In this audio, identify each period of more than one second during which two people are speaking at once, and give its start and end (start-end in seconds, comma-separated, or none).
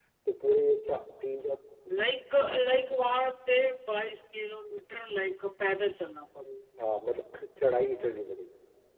none